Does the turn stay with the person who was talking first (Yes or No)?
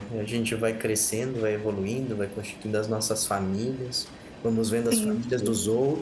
Yes